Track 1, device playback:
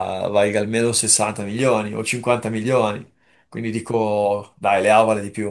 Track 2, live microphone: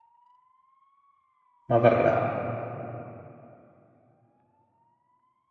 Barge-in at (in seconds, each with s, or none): 1.7 s